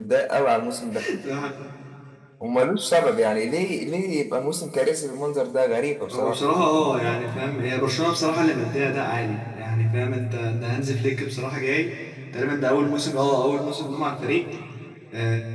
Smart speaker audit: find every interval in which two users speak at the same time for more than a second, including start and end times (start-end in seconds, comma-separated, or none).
none